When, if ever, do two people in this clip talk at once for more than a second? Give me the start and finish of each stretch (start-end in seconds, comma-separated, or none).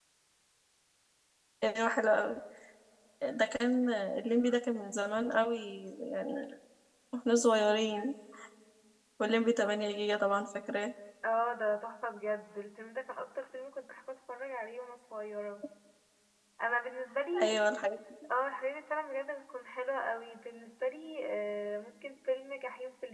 none